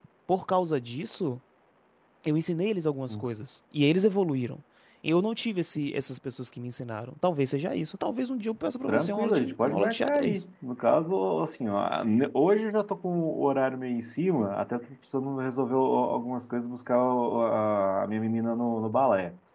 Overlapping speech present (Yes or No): Yes